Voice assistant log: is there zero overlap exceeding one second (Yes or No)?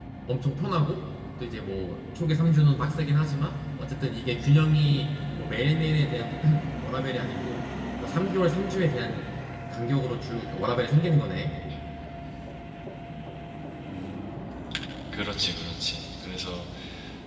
Yes